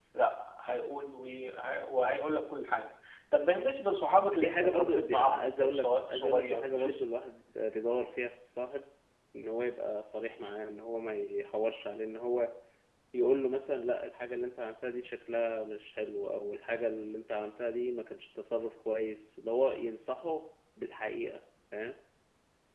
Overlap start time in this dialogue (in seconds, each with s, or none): 4.3 s